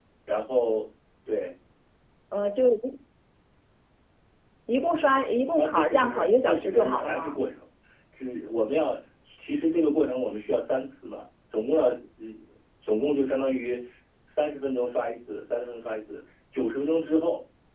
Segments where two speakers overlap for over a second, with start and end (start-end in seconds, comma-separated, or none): 5.6-7.4